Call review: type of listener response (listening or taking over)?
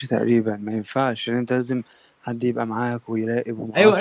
taking over